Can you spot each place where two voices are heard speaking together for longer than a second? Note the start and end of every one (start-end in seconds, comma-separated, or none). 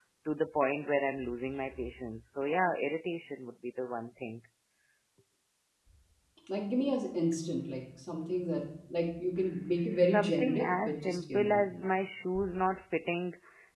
9.6-11.6